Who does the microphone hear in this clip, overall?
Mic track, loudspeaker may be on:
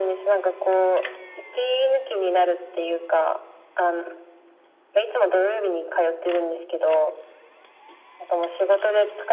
echo only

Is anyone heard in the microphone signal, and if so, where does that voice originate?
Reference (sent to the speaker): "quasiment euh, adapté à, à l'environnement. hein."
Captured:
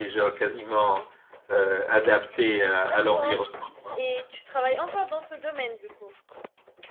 both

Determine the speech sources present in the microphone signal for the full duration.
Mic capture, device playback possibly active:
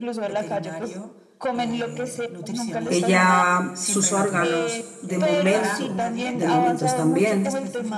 both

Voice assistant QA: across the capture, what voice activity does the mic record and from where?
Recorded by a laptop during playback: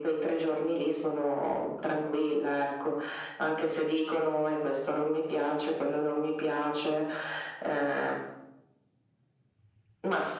echo only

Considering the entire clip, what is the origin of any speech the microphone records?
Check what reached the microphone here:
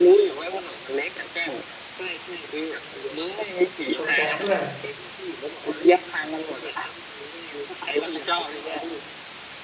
both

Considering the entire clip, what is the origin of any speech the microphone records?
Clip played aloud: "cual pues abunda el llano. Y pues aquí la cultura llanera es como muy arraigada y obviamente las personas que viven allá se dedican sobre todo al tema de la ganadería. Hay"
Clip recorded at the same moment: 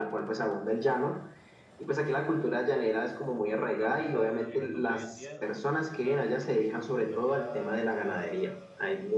both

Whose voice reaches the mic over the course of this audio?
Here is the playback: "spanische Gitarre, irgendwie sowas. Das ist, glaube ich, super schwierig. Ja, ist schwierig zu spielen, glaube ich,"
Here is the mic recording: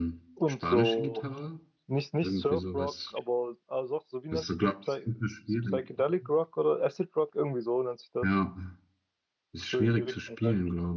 both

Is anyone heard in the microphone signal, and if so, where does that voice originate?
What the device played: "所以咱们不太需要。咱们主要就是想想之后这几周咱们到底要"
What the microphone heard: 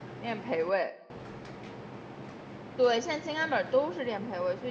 user only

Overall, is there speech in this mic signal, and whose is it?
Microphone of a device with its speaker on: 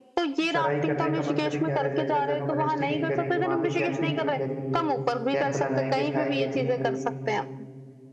both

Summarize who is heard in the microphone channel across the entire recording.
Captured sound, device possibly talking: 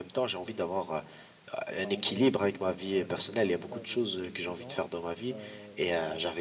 both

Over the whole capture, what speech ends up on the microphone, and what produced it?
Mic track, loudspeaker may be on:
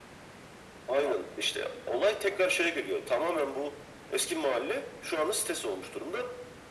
echo only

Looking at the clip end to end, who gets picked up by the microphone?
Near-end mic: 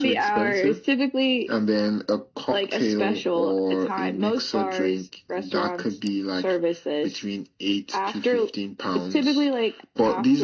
echo only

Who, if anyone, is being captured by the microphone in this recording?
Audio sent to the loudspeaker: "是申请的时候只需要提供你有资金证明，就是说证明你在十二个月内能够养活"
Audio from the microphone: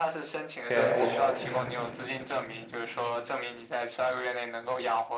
both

